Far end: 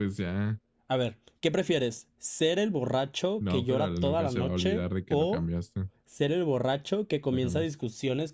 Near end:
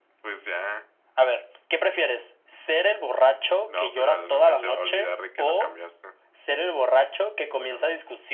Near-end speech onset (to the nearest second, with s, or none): none